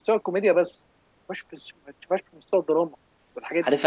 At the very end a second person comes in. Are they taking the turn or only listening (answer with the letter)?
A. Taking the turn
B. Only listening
A